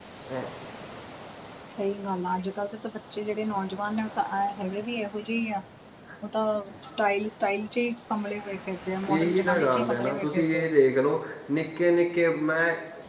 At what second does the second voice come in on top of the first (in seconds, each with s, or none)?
9.1 s